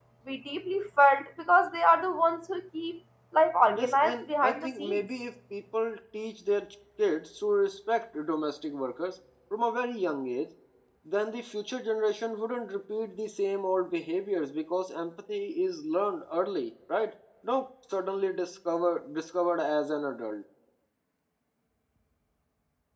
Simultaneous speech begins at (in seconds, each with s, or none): 3.8 s